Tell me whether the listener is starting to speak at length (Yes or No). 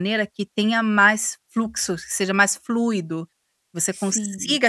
No